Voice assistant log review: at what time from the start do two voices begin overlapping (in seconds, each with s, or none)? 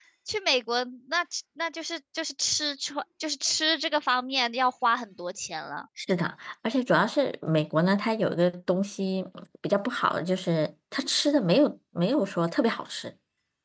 none